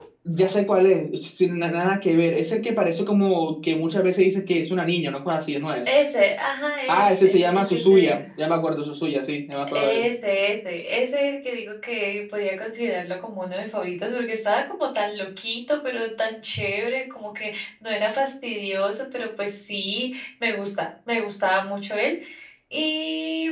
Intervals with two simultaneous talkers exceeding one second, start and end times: 6.9-8.2

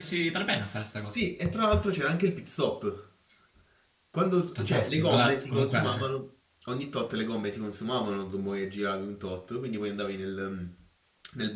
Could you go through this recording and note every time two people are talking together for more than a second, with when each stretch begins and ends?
4.5-5.8

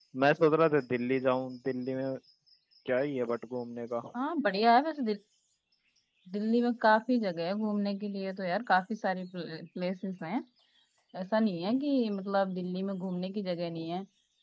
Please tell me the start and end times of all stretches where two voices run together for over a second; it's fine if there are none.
none

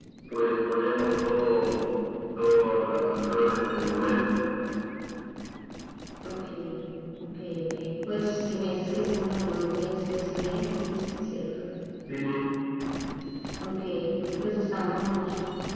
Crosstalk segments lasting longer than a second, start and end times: none

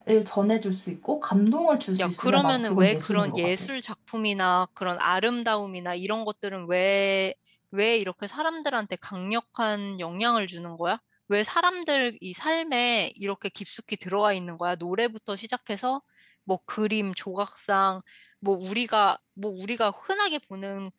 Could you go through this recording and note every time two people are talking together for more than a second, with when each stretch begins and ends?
2.0-3.5

